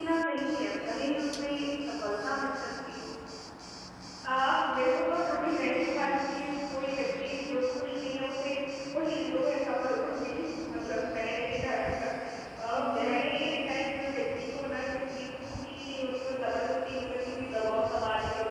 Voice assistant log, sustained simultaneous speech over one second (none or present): none